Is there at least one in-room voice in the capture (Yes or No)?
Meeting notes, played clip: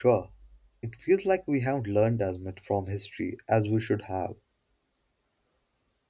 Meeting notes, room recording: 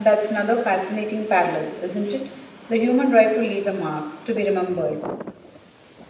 Yes